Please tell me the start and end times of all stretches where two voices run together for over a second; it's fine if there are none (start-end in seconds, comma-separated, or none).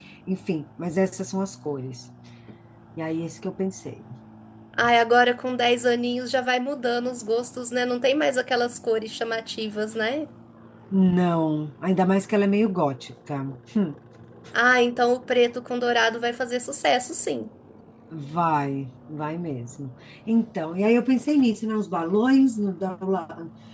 none